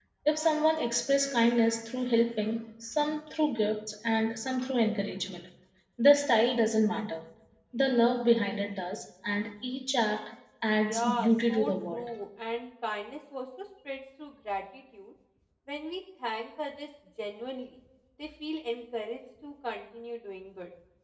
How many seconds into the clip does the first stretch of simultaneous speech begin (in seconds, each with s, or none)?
10.8 s